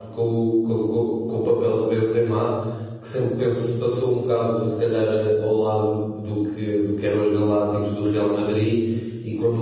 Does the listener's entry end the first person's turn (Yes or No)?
No